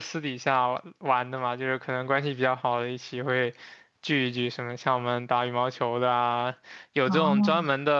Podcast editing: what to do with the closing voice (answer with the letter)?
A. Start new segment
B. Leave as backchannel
B